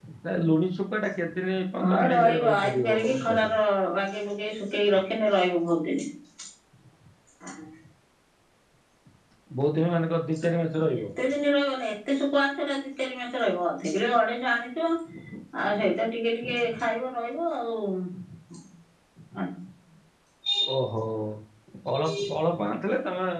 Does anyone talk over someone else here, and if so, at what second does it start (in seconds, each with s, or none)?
1.9 s